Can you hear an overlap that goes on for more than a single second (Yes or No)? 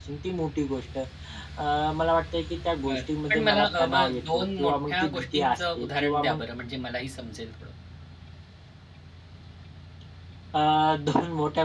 Yes